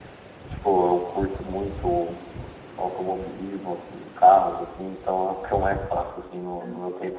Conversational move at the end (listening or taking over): taking over